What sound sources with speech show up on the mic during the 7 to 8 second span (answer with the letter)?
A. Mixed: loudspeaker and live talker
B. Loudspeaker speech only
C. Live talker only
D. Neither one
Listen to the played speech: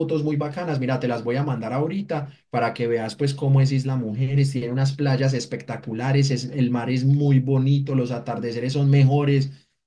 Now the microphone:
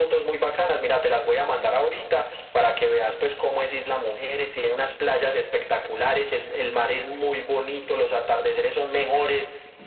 B